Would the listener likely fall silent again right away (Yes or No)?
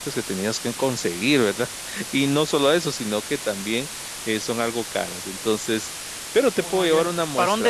No